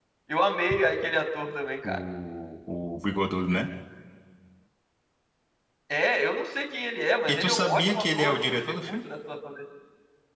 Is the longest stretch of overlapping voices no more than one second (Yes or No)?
No